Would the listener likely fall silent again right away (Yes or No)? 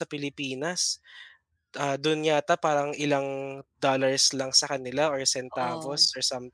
Yes